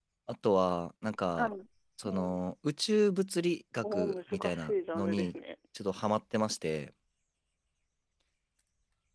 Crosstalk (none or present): present